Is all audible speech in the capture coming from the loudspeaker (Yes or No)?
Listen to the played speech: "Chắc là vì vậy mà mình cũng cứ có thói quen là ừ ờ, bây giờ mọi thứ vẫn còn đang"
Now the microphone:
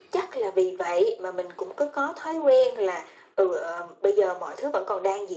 Yes